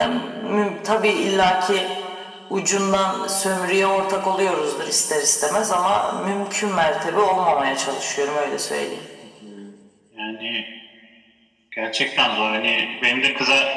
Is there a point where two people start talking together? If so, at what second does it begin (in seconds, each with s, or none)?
none